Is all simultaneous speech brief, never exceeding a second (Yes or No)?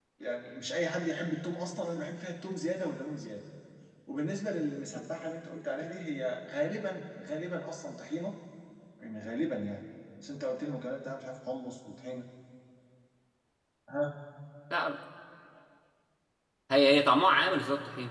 Yes